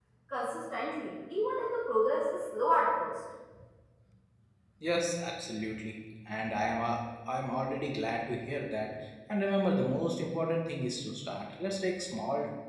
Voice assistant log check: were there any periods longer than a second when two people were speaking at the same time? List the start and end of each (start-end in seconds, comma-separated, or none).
none